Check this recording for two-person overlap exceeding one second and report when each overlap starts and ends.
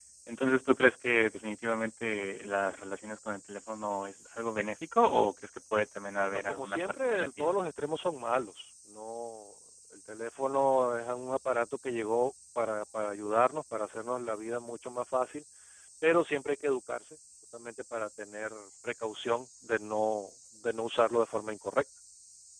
6.2-7.5

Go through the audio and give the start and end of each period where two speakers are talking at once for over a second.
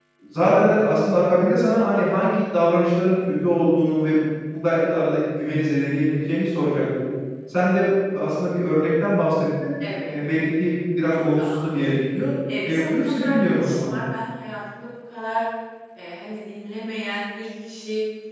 12.6-14.0

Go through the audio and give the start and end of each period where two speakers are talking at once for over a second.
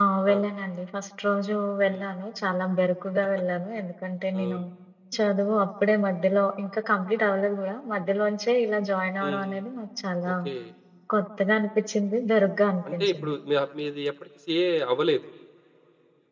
none

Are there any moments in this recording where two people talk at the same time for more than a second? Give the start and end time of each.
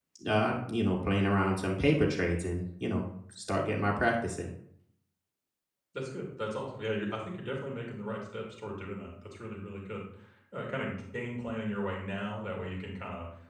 none

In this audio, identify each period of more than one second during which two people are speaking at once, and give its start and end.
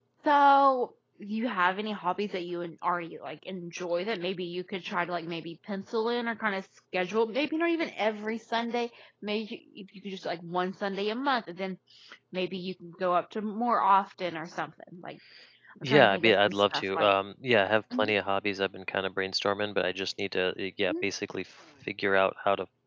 15.8-17.1

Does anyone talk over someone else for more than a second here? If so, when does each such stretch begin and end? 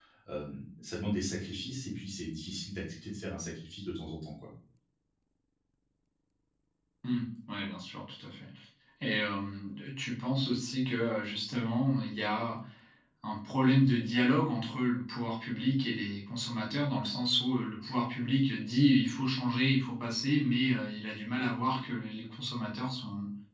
none

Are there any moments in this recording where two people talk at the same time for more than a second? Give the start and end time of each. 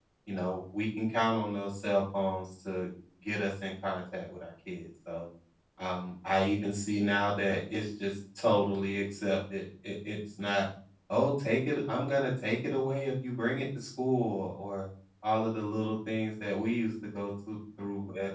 none

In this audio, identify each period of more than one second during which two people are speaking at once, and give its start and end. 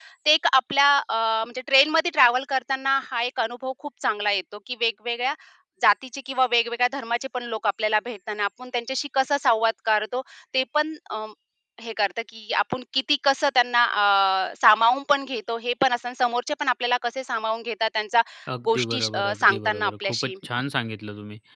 18.7-20.3

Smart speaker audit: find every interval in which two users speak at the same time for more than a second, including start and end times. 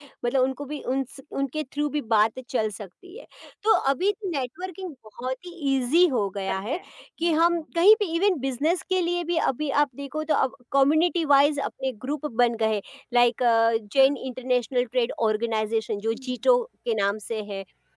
none

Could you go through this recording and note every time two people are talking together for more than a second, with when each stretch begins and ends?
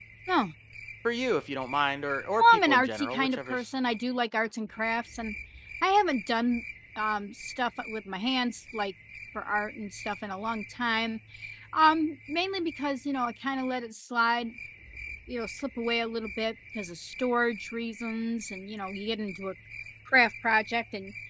2.4-3.6

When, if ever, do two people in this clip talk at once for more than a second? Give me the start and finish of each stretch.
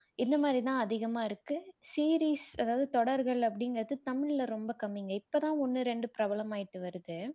none

